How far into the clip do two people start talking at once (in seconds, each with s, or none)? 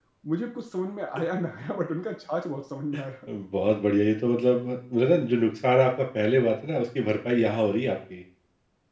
none